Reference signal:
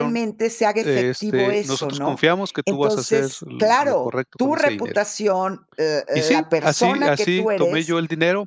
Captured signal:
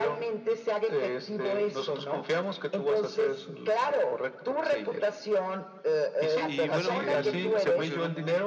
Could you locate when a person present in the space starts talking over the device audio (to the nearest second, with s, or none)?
6 s